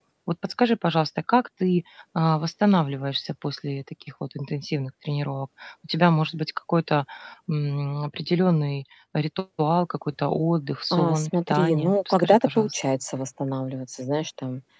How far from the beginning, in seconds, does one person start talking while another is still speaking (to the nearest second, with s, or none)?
11 s